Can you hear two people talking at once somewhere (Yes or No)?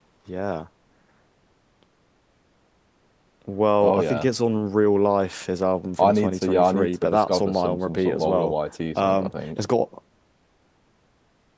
Yes